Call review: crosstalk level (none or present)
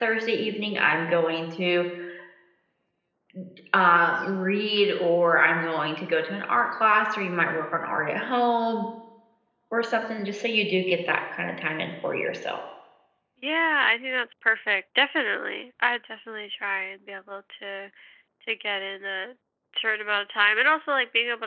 none